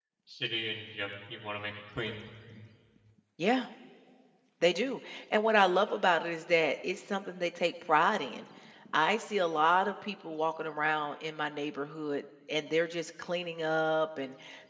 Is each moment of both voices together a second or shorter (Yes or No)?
Yes